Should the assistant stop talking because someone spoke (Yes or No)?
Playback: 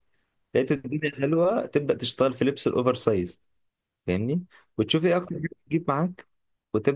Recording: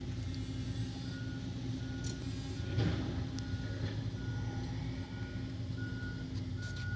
No